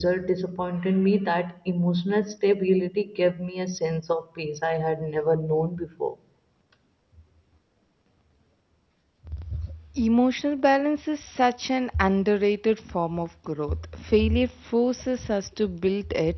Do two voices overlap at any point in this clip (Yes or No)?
No